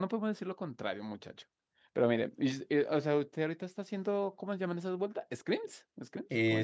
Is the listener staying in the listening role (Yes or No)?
No